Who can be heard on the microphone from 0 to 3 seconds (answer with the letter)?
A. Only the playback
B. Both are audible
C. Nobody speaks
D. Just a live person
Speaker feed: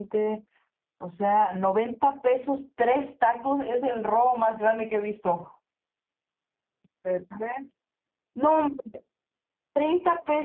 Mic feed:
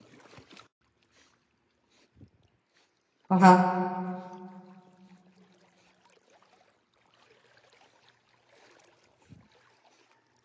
C